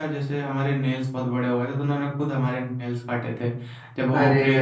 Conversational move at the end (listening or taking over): listening